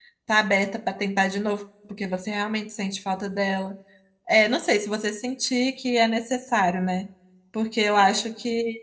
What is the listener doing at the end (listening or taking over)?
listening